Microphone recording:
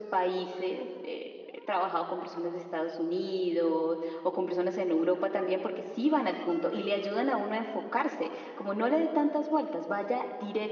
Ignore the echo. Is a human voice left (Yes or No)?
No